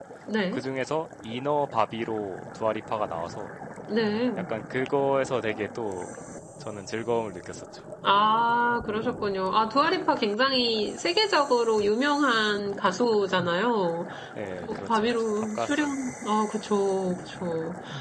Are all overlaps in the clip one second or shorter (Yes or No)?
No